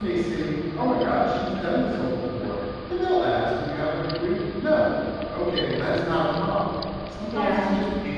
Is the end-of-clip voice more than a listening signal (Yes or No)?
No